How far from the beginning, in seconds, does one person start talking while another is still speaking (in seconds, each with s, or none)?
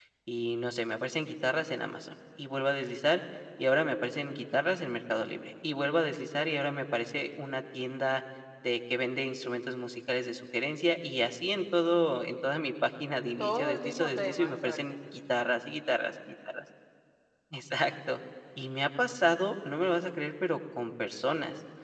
13.4 s